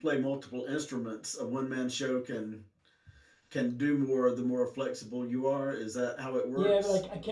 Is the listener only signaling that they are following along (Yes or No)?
No